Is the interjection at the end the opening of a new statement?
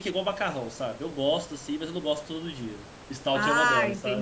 Yes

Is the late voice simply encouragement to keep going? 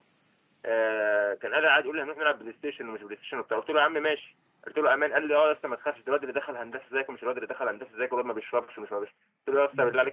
Yes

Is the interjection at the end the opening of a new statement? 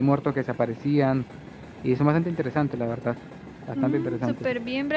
Yes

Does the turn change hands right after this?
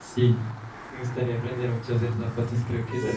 No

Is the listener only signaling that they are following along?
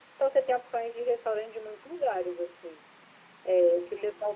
Yes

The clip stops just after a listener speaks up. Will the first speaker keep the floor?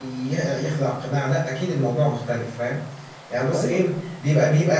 Yes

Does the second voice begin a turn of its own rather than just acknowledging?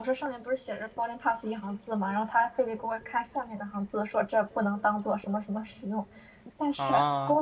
No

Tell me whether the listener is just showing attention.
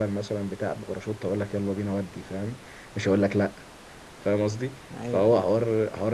Yes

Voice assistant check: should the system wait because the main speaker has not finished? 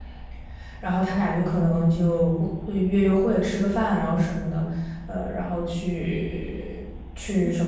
No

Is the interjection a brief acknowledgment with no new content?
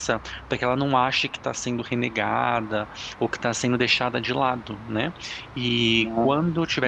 Yes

